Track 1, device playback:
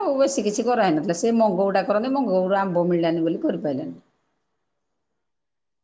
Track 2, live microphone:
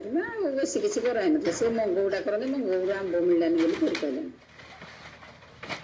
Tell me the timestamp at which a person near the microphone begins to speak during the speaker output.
none

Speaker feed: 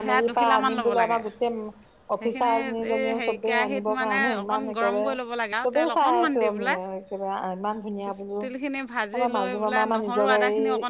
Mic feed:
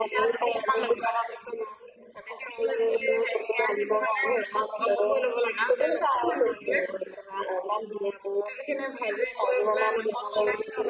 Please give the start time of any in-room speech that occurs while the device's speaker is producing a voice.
none

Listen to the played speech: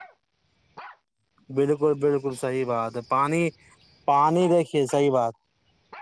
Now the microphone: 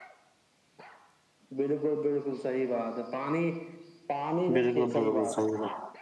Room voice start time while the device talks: 4.5 s

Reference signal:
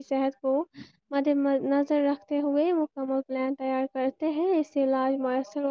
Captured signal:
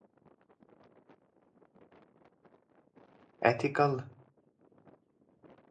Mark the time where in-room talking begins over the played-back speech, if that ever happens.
3.5 s

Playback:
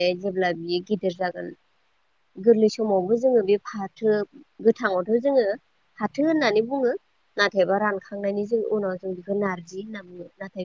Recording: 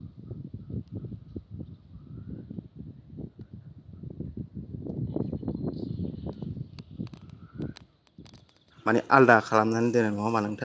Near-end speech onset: 8.8 s

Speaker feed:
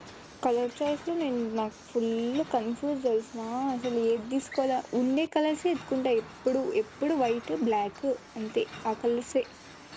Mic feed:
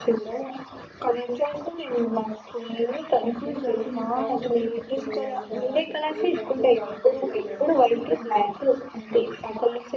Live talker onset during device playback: 3.2 s

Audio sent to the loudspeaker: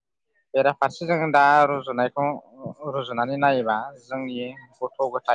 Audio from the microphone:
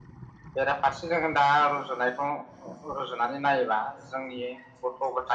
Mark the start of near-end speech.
none

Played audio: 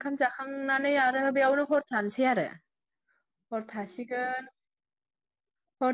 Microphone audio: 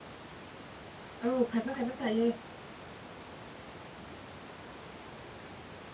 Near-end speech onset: 1.2 s

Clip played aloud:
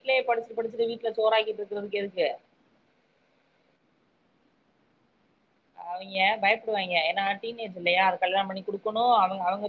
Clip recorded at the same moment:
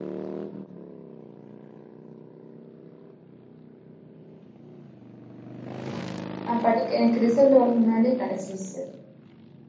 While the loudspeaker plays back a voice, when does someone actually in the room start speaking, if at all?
6.5 s

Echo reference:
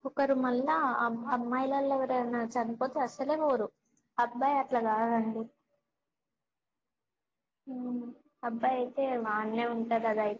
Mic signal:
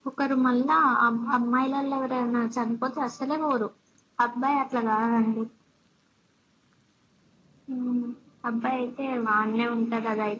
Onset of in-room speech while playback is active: none

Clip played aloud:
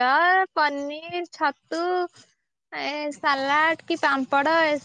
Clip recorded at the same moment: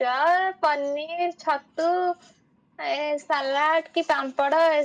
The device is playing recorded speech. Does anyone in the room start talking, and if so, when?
none

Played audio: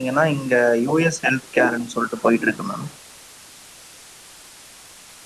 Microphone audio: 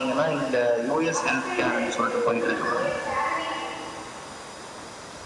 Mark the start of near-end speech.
1.1 s

